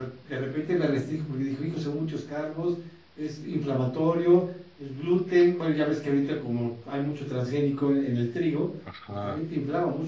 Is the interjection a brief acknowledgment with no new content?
Yes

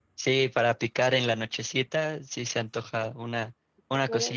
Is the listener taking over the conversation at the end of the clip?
No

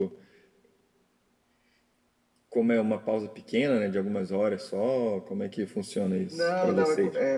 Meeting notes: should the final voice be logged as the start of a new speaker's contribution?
Yes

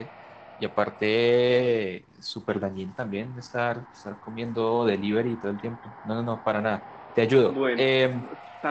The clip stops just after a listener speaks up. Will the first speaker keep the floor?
No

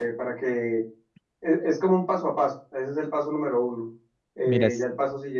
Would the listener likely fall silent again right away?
Yes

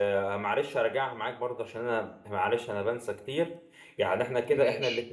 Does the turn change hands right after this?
No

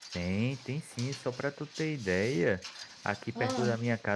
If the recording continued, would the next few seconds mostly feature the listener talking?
No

